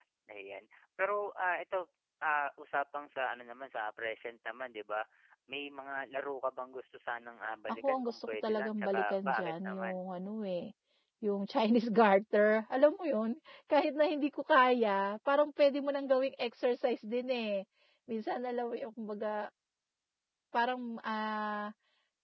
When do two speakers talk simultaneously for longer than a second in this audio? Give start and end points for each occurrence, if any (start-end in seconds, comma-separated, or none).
7.7-10.0